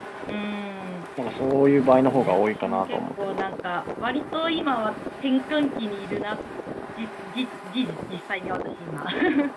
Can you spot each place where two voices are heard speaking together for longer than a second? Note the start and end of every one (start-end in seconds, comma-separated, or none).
1.7-3.4